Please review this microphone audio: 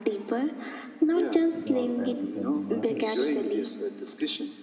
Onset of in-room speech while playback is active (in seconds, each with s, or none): 1.5 s